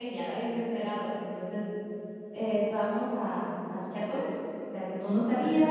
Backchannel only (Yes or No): Yes